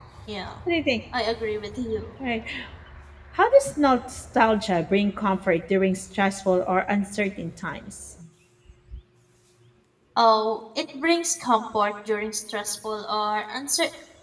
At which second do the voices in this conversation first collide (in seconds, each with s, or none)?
none